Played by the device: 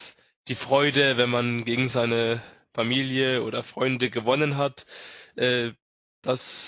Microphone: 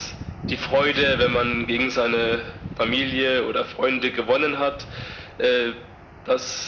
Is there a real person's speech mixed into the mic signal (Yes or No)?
No